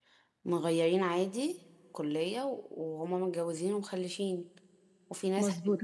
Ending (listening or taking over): taking over